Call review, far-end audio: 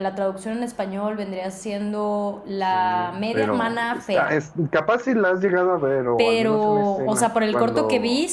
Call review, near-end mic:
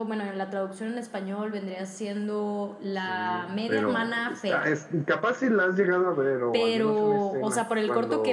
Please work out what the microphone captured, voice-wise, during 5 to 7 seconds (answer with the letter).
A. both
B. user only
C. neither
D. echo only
D